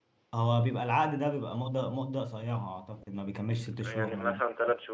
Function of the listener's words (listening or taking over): taking over